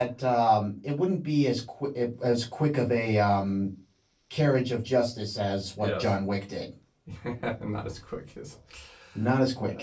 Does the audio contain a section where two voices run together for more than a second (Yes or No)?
No